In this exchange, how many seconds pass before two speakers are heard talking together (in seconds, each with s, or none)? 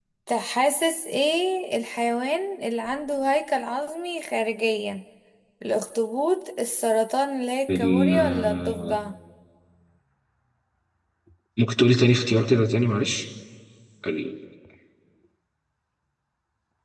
7.7 s